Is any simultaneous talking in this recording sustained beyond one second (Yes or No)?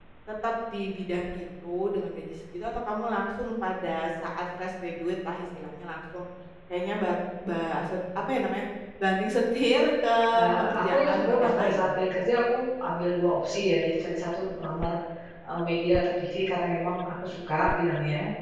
Yes